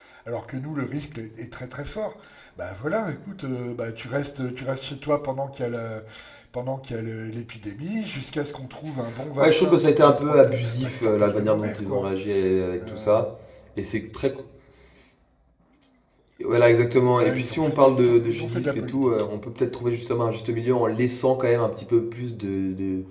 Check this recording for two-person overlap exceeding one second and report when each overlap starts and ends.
9.4-12.0, 17.0-19.1

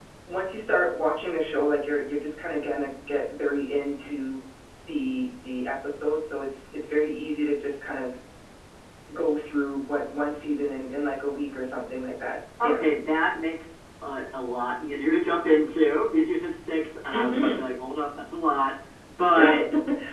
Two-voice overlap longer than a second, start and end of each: none

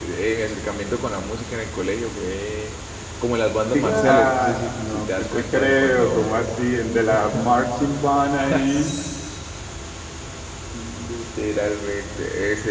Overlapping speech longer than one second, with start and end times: 3.7-6.3

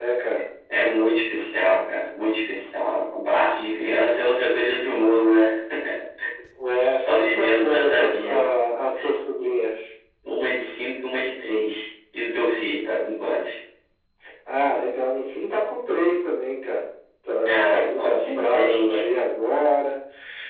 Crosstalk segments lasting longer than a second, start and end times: 7.0-8.5, 17.4-19.0

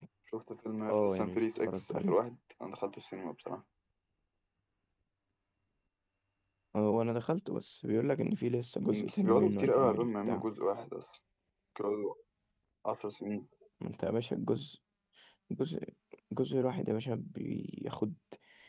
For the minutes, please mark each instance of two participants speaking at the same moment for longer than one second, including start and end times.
0.9-2.2, 9.1-10.4

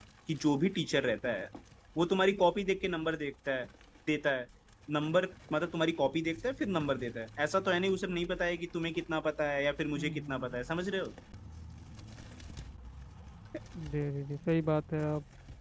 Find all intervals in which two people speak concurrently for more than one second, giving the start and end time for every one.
none

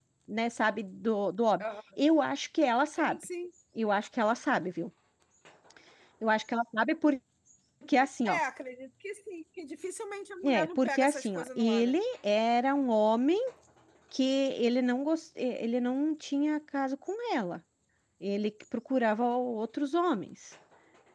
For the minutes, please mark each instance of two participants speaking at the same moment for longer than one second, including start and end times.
10.4-12.0

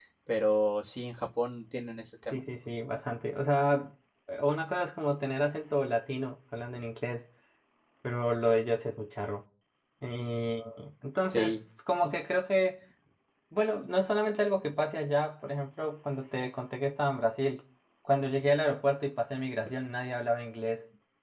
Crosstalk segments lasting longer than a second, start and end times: none

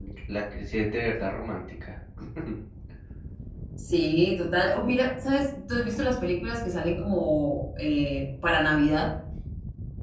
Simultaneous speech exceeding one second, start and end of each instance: none

